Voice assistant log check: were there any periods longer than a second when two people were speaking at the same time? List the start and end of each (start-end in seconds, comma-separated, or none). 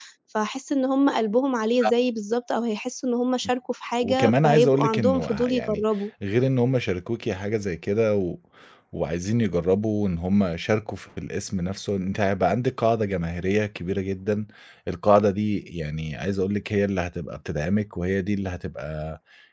4.0-5.8